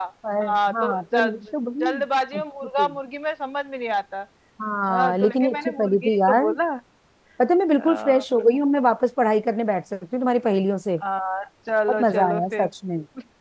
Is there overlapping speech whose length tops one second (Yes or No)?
Yes